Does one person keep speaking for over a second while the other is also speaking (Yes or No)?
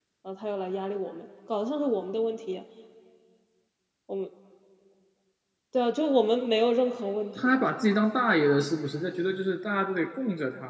No